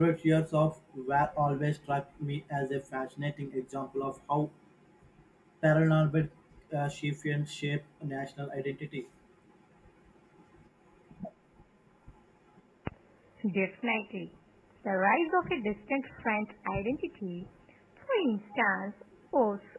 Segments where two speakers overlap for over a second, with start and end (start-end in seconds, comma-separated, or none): none